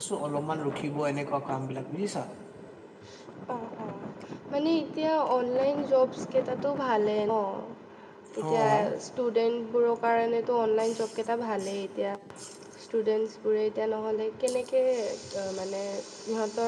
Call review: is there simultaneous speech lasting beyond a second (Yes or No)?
No